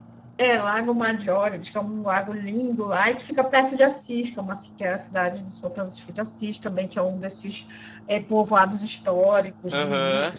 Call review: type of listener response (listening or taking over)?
listening